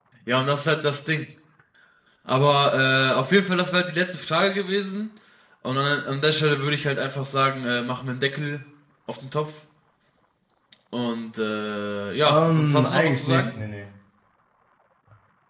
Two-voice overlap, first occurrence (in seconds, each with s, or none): 12.2 s